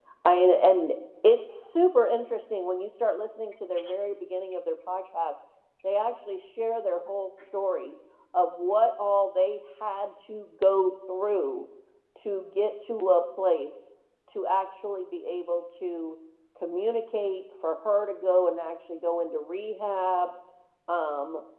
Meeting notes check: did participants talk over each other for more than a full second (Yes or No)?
No